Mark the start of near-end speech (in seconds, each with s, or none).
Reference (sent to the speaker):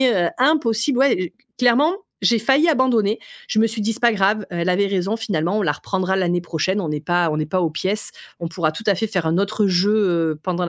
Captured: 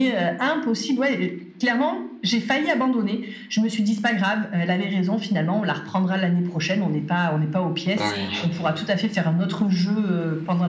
8.0 s